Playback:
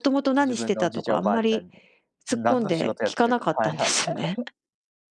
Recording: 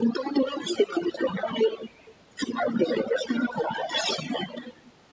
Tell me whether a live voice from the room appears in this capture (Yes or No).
No